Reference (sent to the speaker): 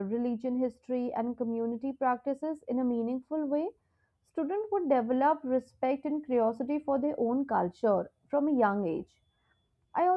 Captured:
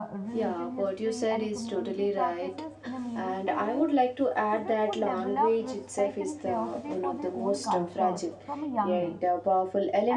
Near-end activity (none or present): present